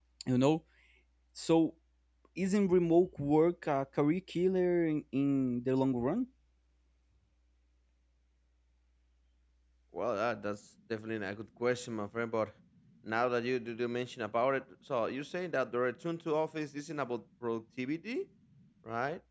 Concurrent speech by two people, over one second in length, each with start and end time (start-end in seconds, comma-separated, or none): none